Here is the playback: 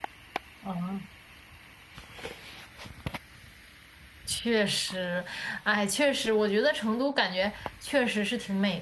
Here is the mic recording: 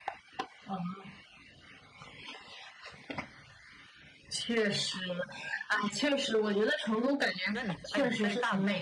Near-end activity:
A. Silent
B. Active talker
B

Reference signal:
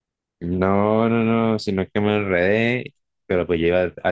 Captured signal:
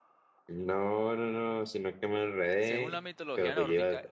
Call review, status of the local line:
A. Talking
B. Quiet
A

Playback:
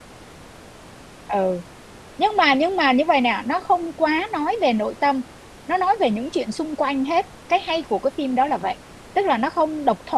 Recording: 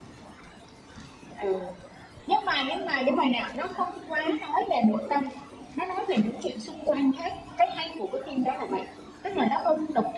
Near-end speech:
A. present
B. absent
B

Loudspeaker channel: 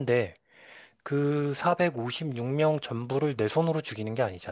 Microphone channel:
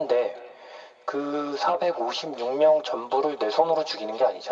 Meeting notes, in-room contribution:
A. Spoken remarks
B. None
B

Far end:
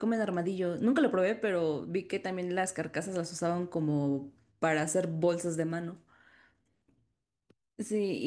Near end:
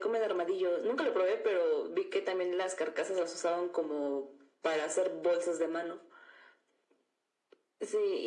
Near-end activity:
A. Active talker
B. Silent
B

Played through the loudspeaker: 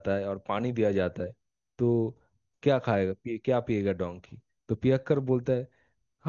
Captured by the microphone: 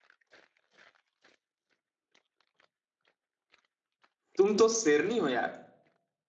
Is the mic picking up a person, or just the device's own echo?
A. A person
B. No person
A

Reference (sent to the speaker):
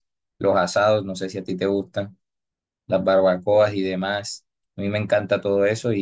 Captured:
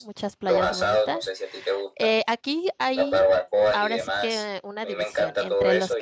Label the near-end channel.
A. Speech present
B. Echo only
A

